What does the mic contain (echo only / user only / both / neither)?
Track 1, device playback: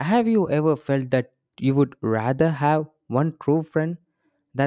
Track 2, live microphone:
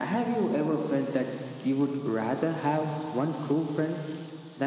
echo only